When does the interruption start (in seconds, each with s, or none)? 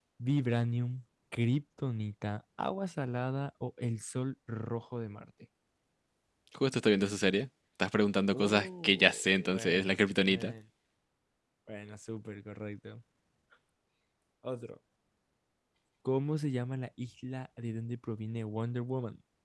8.3 s